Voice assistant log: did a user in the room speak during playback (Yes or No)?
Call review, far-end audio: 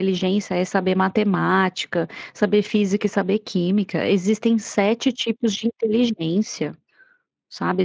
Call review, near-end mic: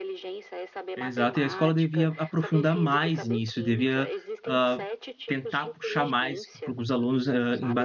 Yes